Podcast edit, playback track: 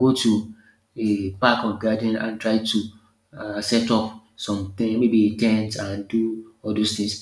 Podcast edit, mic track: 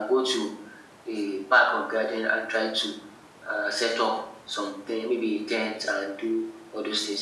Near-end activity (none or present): none